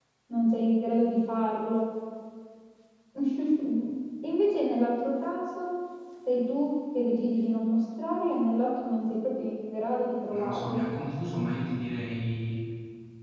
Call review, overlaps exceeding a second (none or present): none